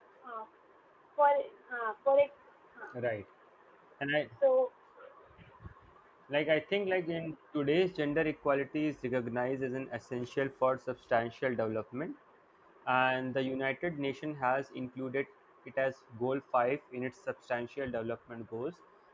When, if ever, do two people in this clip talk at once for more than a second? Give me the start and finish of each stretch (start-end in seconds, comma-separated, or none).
none